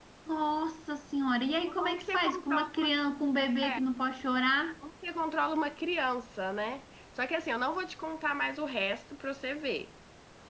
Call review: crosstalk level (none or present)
present